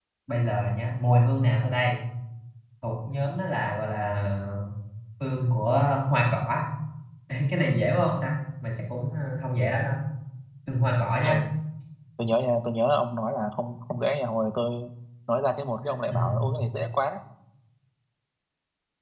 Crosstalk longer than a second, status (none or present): none